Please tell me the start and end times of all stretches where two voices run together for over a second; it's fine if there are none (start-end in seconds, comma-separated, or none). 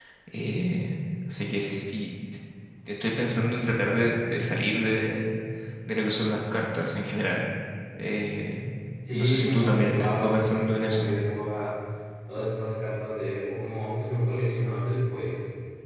9.1-11.1